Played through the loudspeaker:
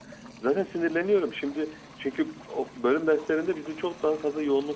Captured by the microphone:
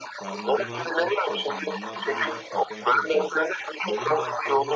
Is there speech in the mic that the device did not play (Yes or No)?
Yes